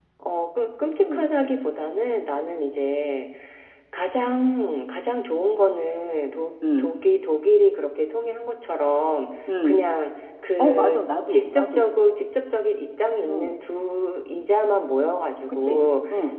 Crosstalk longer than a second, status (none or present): present